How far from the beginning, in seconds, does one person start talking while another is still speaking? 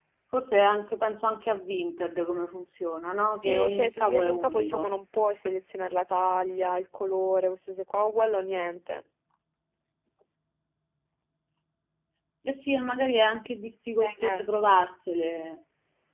3.4 s

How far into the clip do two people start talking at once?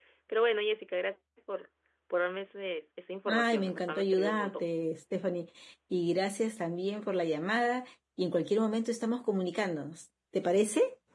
3.3 s

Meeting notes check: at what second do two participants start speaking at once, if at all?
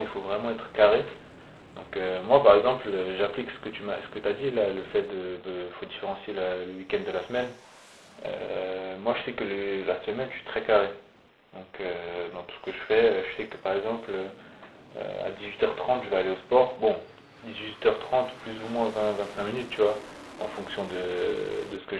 none

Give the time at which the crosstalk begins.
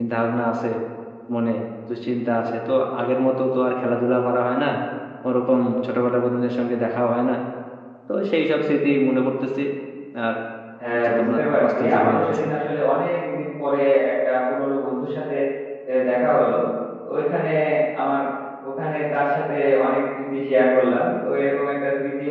11.0 s

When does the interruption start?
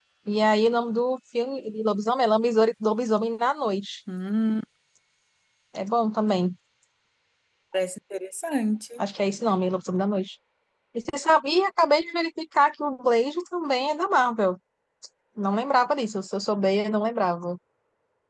none

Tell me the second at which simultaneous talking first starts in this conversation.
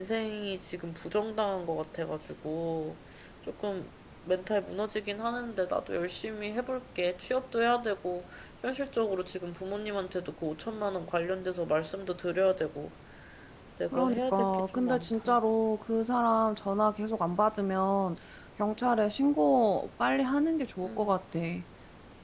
13.9 s

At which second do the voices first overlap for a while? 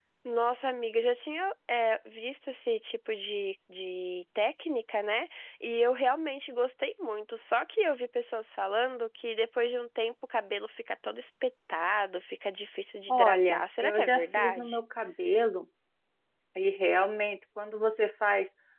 13.1 s

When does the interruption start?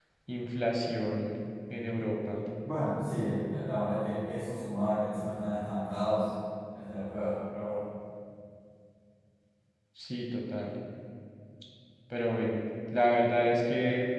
none

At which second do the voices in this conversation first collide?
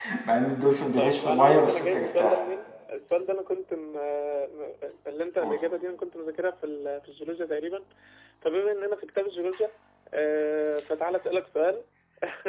1.0 s

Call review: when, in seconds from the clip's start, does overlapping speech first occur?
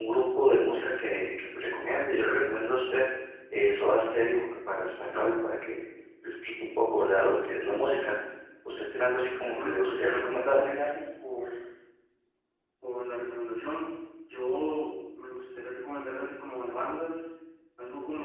9.5 s

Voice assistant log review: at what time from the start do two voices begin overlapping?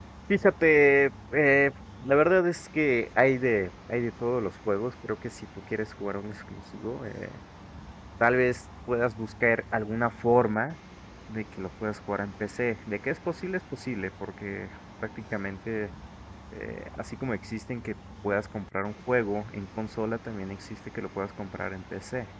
none

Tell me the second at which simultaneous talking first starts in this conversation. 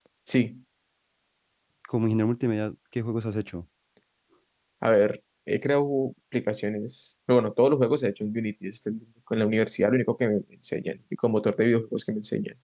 none

